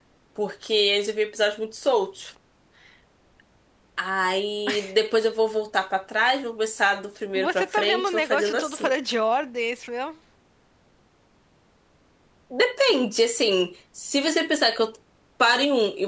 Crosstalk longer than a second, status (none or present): present